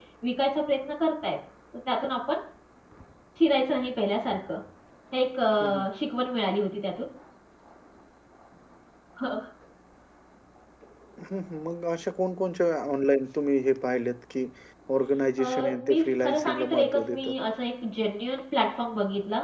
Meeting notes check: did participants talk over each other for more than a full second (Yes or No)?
Yes